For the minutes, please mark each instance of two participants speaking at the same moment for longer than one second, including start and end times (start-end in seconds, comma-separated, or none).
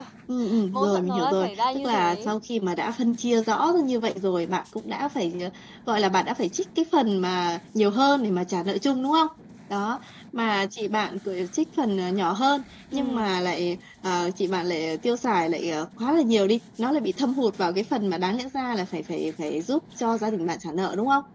0.7-2.3